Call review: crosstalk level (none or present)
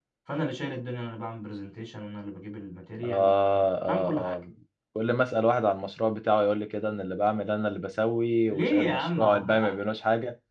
present